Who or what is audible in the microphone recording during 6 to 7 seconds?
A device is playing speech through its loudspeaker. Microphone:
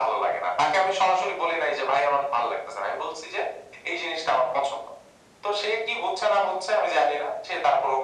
echo only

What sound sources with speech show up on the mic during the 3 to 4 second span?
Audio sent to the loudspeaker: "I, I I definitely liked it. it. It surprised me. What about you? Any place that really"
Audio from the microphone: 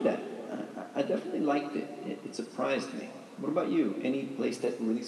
echo only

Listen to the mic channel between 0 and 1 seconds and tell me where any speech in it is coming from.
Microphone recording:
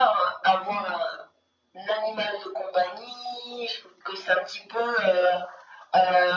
echo only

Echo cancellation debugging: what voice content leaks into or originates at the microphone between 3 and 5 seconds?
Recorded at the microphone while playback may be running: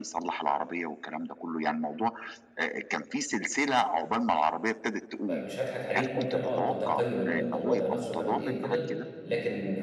echo only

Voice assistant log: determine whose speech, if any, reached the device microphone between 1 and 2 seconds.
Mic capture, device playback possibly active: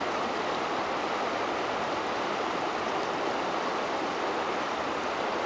neither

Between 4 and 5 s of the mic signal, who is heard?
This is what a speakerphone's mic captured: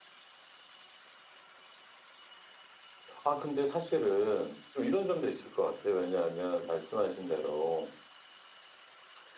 user only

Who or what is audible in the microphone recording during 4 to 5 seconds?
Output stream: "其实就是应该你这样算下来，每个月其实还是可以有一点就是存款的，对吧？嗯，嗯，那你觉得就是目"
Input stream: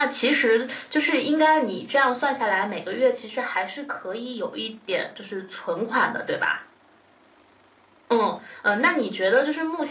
echo only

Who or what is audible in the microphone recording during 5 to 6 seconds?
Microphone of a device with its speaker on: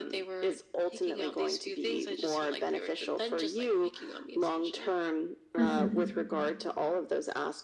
both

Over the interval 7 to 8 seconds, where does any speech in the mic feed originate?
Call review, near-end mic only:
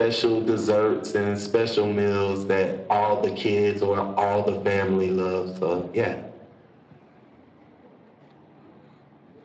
neither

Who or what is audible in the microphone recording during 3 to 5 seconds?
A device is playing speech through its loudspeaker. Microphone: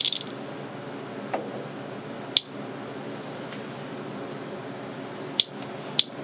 neither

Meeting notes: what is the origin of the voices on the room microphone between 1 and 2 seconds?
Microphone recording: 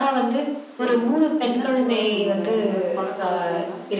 both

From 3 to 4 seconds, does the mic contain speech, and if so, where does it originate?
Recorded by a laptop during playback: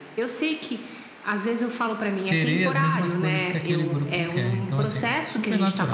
both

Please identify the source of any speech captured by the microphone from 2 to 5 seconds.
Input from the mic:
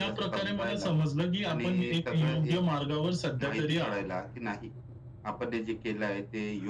echo only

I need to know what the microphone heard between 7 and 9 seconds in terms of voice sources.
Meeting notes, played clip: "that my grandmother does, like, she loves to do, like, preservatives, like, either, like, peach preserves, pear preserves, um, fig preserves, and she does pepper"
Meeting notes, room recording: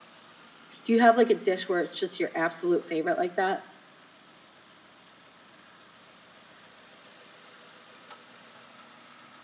neither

